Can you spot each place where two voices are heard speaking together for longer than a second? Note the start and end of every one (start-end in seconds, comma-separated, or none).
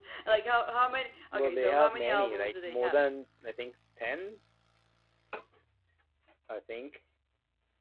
1.3-3.0